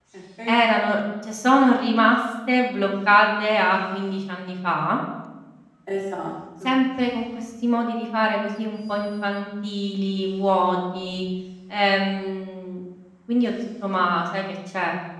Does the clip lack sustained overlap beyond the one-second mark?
Yes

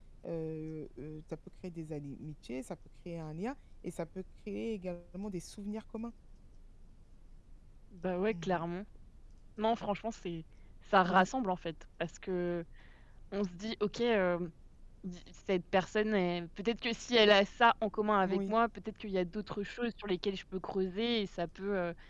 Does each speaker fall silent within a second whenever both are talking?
Yes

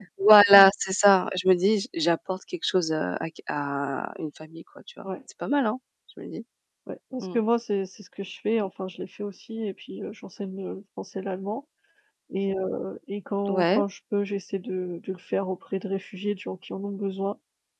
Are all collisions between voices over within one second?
Yes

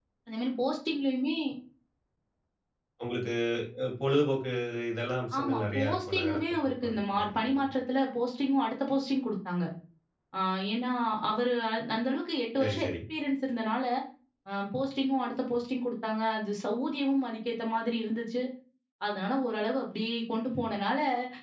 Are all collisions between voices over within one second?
No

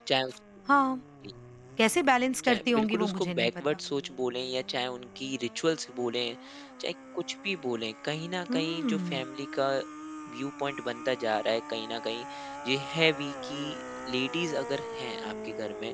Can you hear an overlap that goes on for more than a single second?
Yes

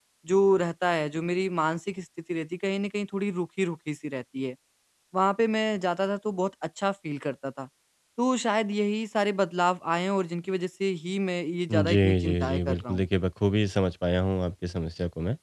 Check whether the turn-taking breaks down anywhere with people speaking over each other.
Yes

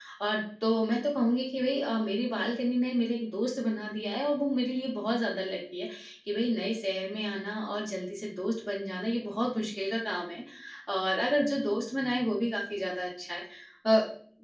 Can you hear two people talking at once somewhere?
No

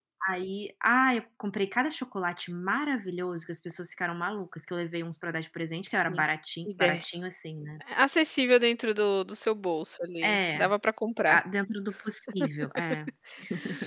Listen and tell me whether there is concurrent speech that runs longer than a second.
No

